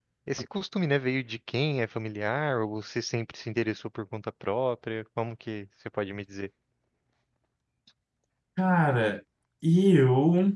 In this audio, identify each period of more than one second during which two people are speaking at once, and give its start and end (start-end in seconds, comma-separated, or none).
none